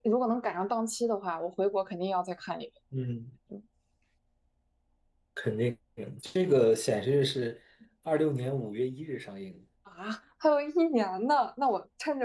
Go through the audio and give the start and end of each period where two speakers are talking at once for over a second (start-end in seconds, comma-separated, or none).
none